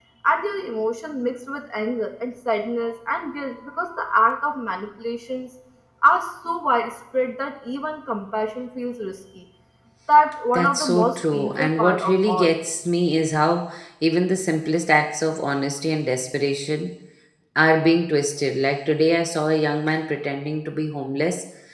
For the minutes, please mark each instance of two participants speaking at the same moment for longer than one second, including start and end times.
10.5-12.6

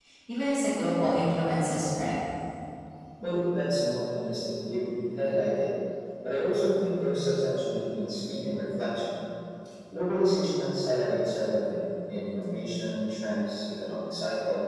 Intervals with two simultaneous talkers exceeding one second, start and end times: none

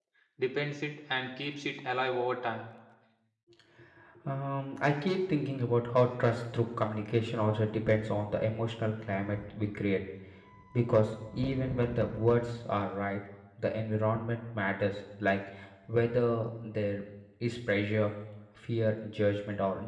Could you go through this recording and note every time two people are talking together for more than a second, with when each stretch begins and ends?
none

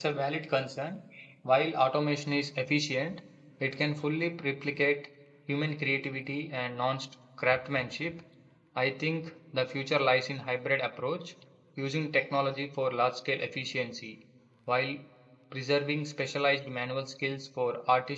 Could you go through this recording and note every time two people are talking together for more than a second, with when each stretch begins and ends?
none

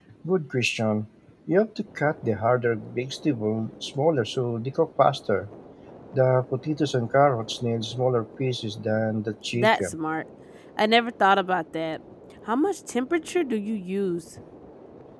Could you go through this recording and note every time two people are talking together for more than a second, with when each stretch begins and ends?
none

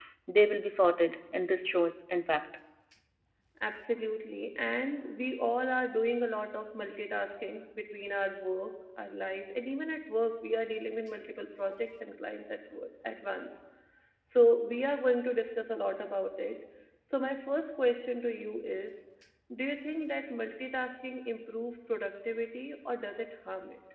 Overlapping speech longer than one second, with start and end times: none

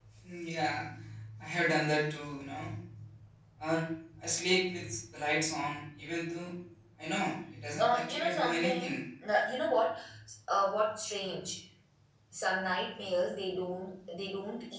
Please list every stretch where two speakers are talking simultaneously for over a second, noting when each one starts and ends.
7.8-9.0

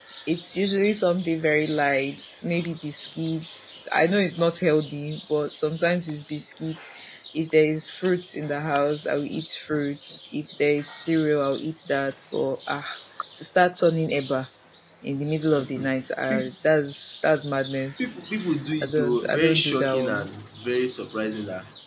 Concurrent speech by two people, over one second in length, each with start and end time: 18.8-20.3

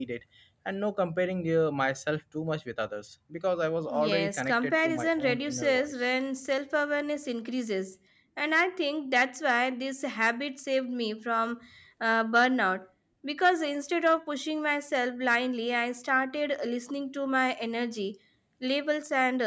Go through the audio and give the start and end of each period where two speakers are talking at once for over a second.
4.0-5.9

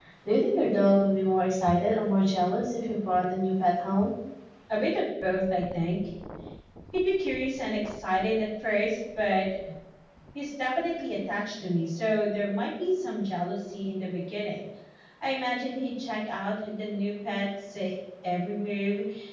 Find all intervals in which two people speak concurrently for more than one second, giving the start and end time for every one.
none

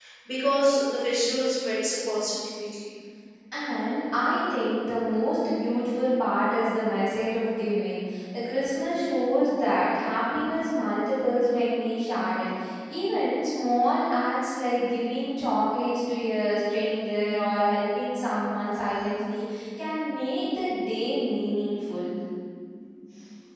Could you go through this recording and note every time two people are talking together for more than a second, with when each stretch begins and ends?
none

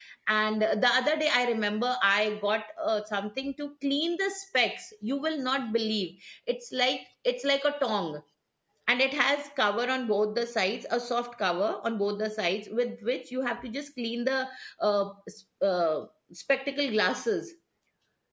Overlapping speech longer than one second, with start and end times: none

